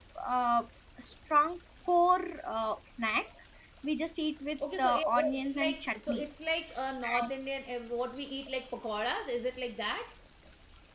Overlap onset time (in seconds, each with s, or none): 4.6 s